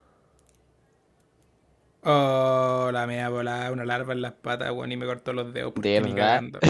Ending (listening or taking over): listening